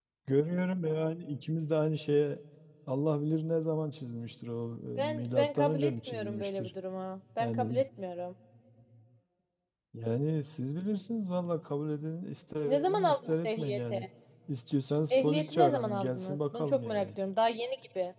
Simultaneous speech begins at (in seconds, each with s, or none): 5.0 s